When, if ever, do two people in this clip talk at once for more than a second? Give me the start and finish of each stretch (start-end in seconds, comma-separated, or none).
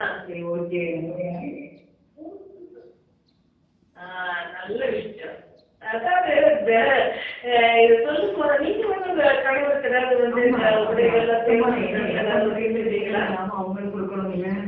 10.3-13.2